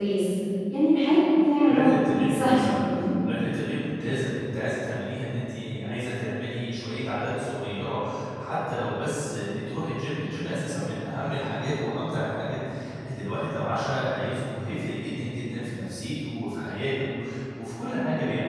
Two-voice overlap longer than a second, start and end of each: 1.7-3.0

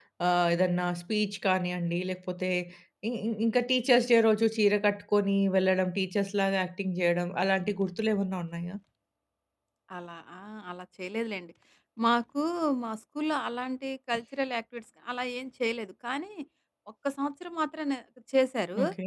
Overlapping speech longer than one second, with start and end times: none

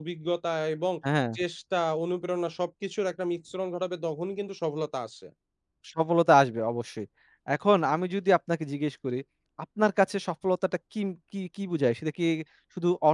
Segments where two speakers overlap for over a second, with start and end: none

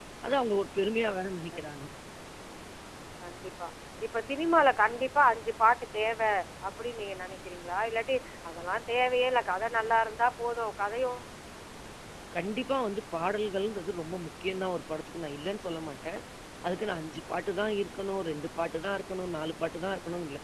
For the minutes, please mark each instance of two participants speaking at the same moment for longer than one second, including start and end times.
none

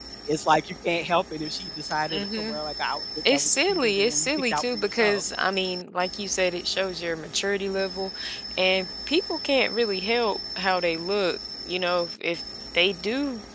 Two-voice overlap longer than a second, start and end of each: 3.3-5.2

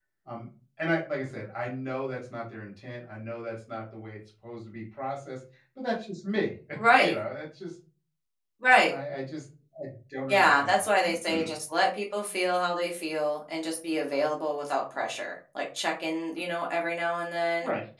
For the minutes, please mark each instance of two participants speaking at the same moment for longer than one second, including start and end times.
10.3-11.5

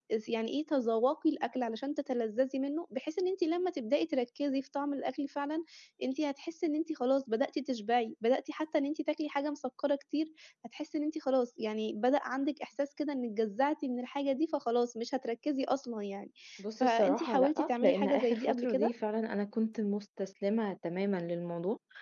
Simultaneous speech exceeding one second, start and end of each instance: 16.8-18.9

